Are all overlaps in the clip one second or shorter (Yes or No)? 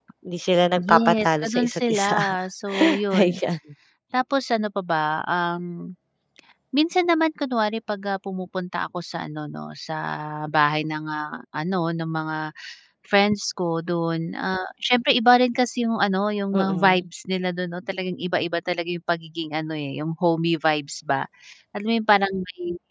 No